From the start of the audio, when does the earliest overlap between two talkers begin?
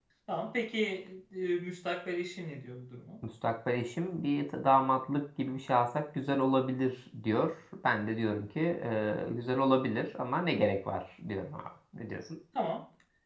none

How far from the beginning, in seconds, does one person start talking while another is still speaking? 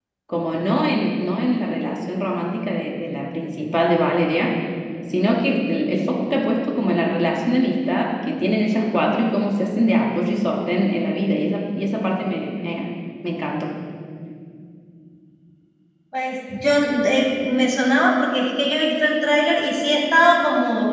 none

